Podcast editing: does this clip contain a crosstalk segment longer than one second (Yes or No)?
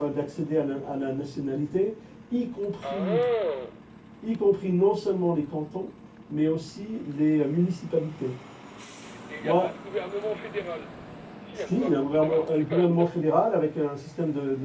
Yes